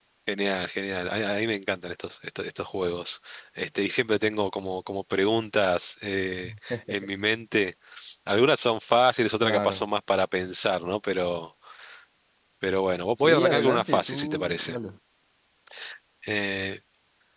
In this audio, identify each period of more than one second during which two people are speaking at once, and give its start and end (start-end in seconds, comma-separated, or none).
13.2-14.8